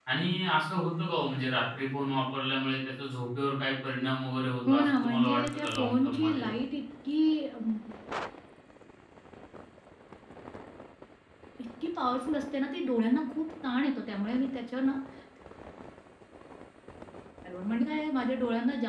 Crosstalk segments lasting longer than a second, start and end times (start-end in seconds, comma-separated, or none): 4.7-6.4